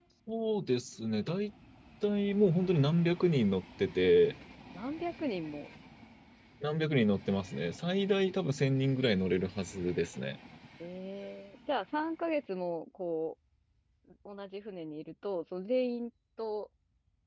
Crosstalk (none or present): none